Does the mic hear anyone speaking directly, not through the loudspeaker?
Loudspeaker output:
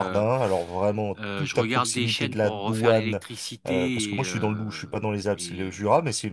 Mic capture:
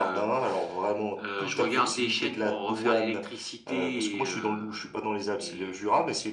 Yes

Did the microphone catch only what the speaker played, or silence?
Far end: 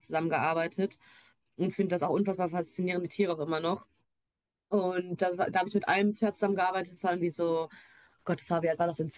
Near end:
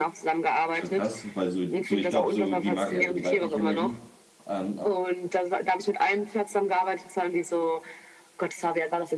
No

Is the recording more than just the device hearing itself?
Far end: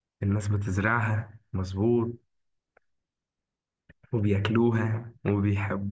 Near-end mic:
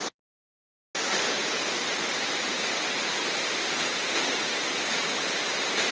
No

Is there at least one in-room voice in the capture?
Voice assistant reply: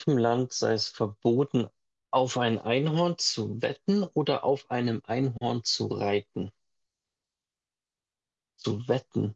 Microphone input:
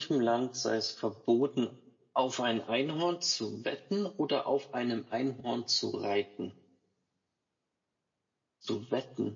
No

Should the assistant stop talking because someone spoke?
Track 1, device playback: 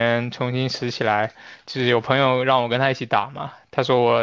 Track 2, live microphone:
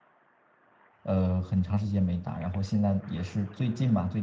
Yes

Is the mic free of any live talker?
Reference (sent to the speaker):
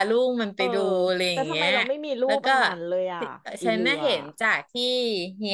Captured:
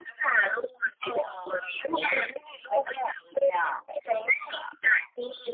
Yes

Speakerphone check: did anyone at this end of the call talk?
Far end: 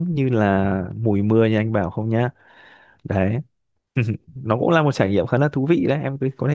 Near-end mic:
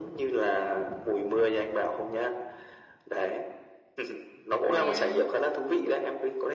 Yes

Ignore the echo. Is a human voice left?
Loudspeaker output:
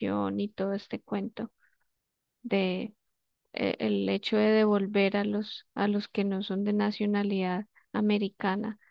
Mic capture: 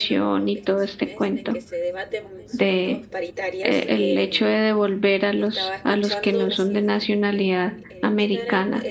Yes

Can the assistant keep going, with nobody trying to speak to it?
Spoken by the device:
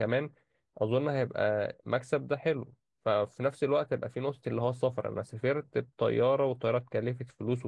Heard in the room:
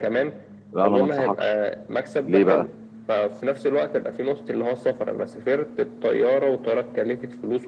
No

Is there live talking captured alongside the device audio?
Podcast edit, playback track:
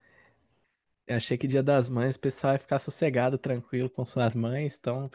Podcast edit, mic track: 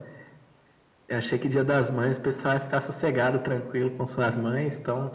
No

